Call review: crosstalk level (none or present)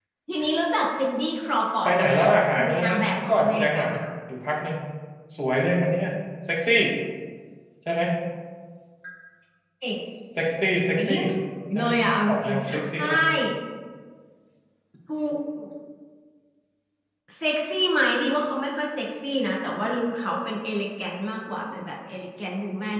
present